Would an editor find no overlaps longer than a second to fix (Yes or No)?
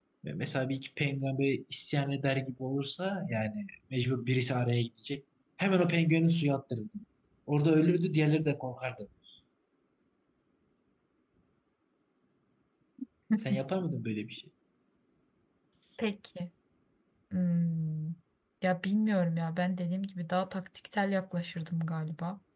Yes